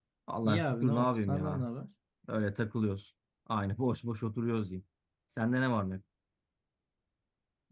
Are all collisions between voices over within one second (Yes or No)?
No